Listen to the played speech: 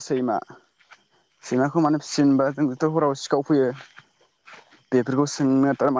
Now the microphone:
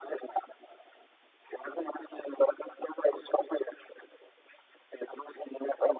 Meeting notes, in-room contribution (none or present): none